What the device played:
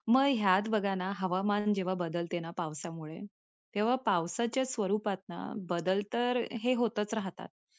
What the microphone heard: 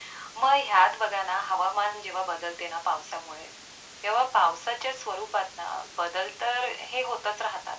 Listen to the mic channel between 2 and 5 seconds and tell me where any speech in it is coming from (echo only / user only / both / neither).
echo only